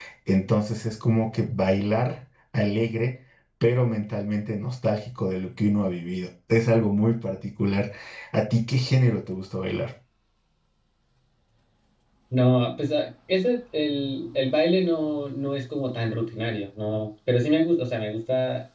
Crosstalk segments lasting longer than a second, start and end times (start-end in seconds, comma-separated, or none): none